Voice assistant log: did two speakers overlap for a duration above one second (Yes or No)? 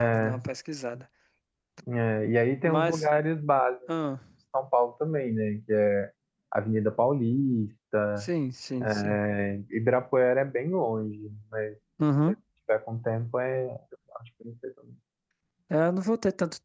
No